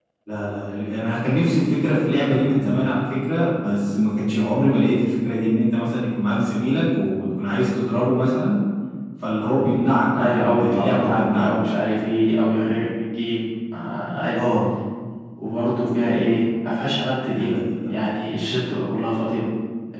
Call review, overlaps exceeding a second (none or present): present